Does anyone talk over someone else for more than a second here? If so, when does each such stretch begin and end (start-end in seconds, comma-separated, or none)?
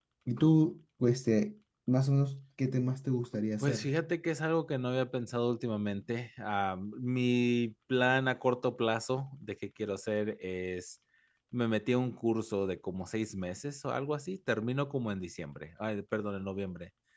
none